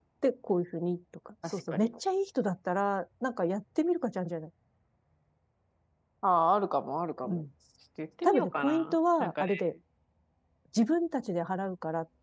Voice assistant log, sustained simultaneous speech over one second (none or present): present